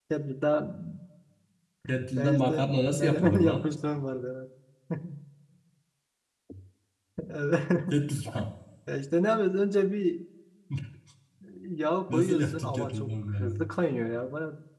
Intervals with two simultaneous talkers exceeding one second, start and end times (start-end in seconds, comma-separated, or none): 2.1-3.7, 12.1-13.7